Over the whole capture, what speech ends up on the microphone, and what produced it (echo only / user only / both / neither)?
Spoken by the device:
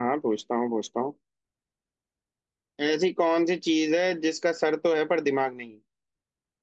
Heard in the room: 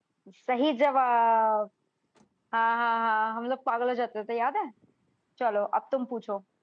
user only